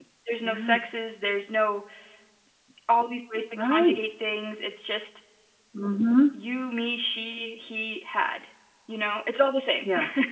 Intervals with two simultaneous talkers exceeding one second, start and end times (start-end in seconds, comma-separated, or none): none